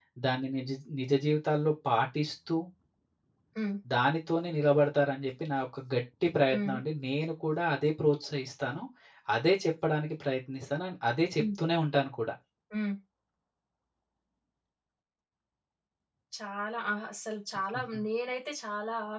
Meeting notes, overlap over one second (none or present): none